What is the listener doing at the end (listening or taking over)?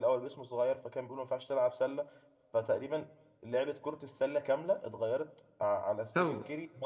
listening